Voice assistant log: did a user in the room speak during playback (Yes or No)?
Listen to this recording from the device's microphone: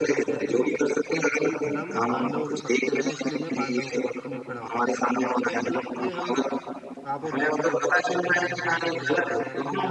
Yes